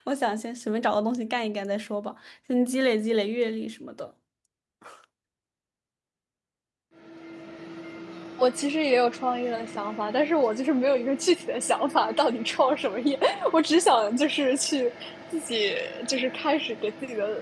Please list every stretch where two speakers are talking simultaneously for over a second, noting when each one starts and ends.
none

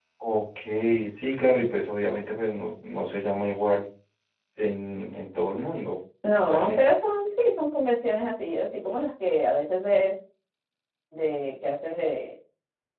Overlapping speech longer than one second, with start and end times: none

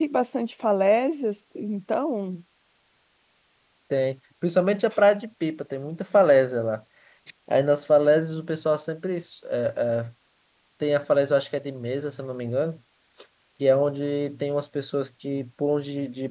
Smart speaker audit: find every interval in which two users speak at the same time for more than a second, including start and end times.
none

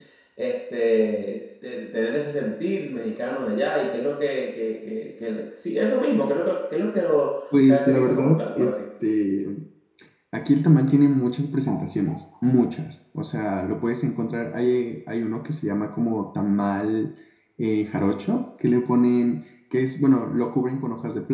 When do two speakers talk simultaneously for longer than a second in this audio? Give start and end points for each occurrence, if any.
7.5-8.9

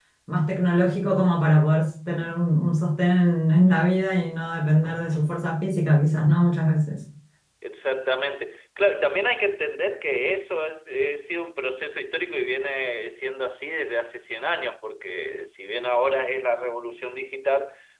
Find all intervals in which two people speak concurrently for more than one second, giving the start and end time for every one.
none

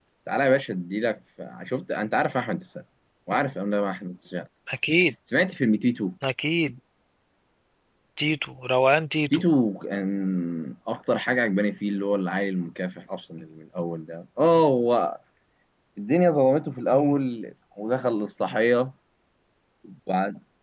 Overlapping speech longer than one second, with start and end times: none

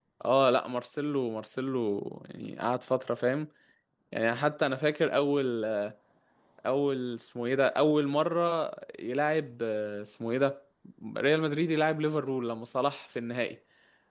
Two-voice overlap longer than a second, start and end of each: none

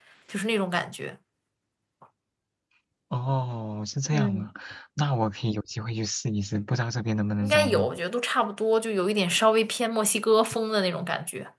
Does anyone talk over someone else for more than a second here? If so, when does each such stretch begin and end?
none

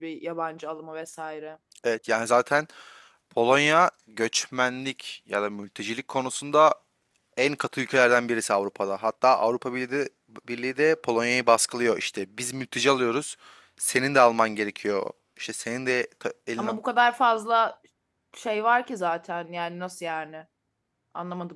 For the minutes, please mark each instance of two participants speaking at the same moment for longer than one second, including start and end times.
none

